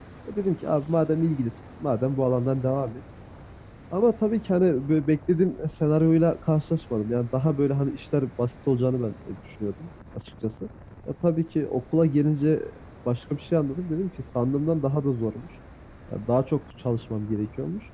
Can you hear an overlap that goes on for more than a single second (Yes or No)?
No